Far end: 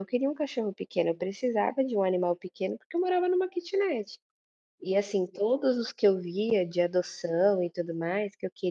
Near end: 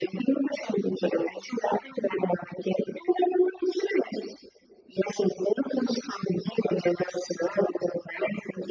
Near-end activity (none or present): none